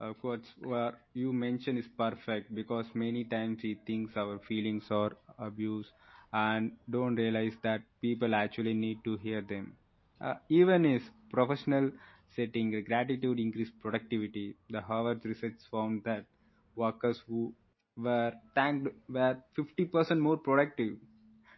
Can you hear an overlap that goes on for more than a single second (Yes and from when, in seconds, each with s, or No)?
No